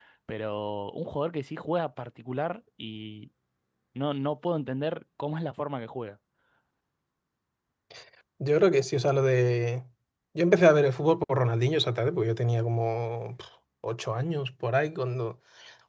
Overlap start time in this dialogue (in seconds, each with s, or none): none